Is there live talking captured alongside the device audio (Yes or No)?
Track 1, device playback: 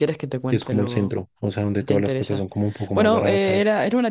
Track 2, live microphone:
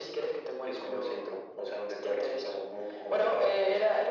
No